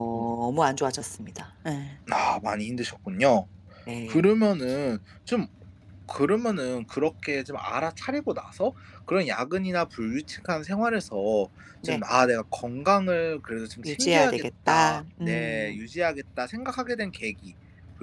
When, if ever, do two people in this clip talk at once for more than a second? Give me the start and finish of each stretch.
13.8-15.8

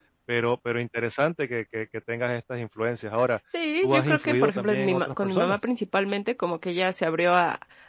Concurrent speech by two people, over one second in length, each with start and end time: 3.8-5.6

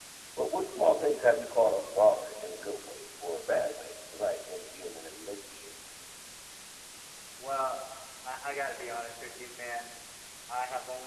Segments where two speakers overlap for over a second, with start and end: none

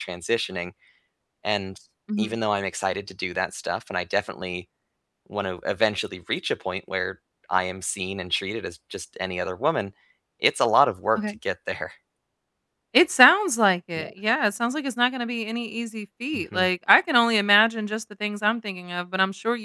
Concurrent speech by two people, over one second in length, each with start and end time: none

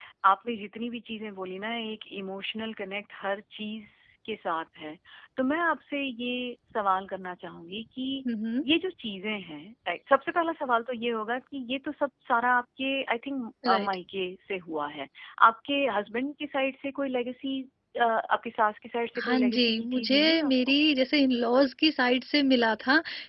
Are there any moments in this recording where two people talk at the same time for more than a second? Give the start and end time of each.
19.2-20.5

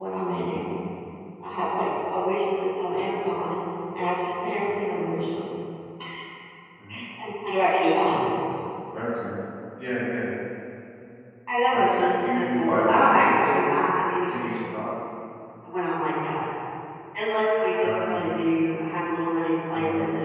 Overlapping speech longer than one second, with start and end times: 11.7-13.8

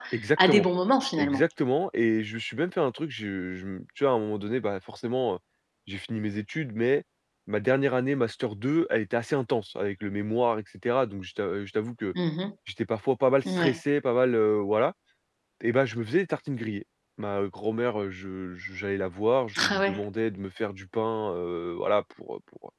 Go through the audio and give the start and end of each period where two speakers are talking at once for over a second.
none

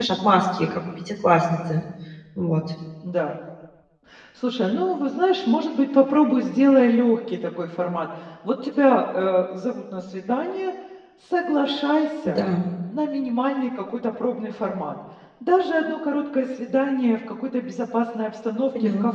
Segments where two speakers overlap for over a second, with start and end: none

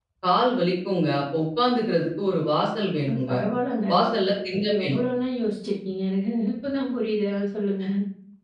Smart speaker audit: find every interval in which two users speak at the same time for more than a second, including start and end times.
none

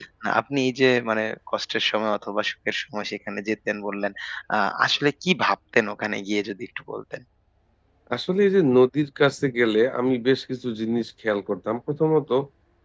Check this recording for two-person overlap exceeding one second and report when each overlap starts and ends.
none

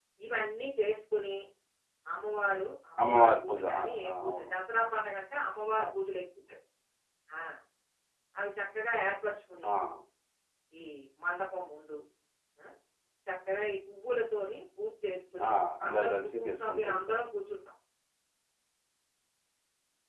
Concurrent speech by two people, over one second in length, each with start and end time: 3.0-4.5, 15.9-17.2

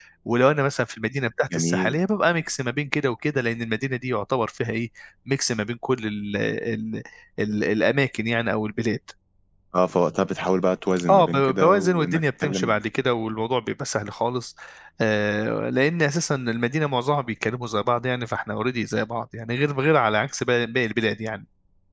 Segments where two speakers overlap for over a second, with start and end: 11.1-12.8

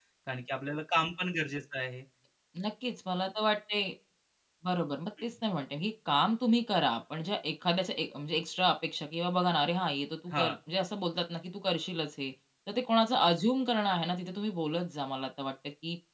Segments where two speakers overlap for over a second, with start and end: none

